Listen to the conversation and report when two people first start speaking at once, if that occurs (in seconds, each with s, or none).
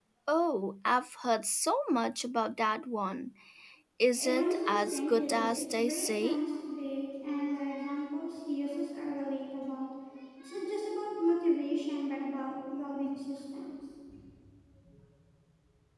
4.2 s